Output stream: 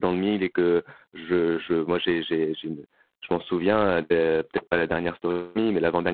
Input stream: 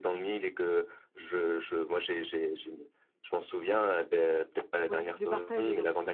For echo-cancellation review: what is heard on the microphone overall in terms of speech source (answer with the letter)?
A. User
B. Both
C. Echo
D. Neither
B